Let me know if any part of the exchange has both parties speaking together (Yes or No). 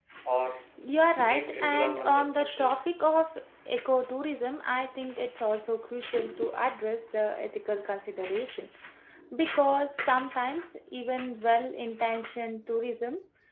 Yes